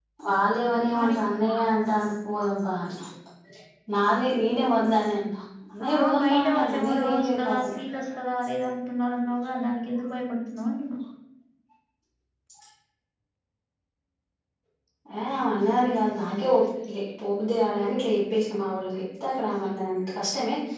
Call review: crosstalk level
present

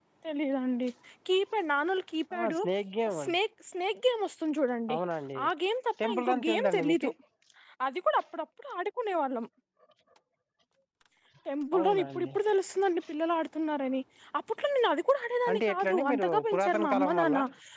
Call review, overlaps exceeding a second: present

